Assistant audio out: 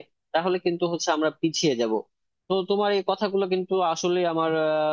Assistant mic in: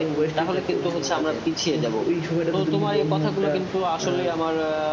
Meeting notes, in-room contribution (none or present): present